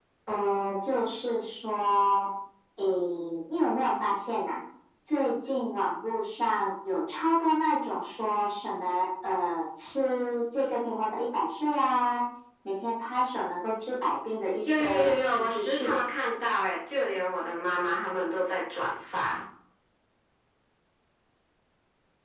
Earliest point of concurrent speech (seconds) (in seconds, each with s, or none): 14.7 s